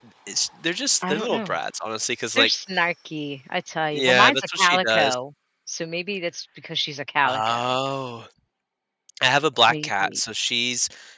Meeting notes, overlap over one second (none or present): present